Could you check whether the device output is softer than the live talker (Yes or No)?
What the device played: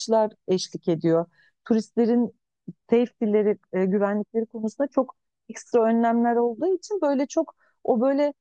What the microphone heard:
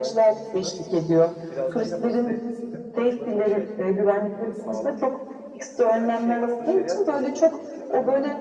No